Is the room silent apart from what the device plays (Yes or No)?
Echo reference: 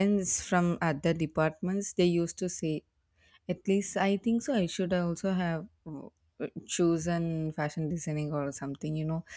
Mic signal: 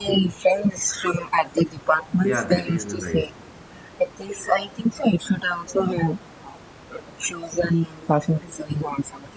No